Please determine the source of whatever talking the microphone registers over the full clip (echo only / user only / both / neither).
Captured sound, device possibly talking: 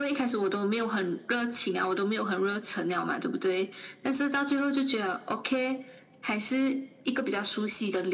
echo only